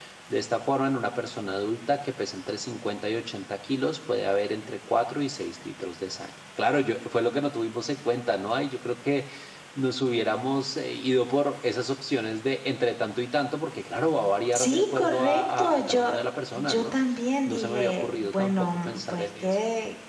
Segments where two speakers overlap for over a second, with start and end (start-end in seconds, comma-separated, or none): 14.5-16.1, 17.5-19.6